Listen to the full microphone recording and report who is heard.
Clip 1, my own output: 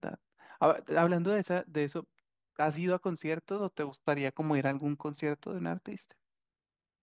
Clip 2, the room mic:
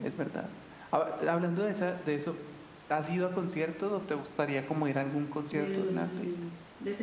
both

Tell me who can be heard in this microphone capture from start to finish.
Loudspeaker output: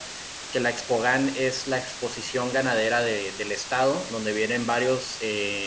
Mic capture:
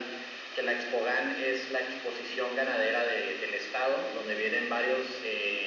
echo only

